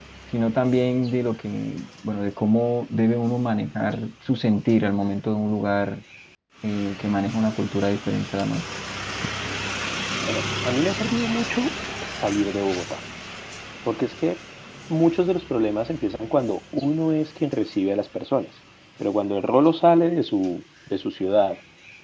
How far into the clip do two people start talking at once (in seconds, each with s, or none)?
none